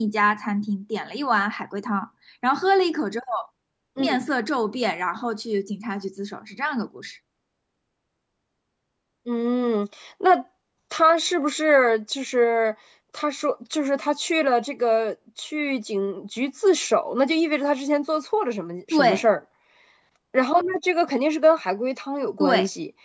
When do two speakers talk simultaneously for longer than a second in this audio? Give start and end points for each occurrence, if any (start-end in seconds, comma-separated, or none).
none